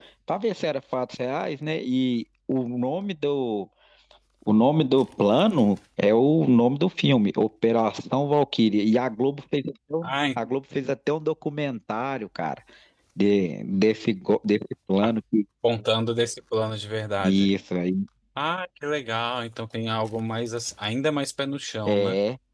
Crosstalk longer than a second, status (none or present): none